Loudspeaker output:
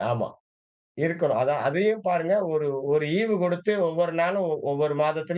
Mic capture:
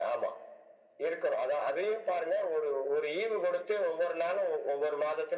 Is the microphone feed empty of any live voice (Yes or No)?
Yes